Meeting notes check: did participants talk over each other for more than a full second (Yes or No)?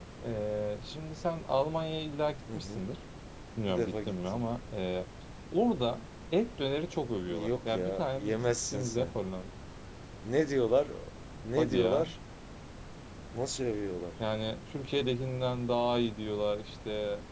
Yes